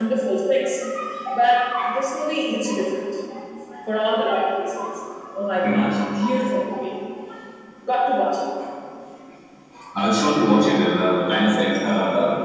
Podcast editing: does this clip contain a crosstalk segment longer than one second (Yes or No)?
No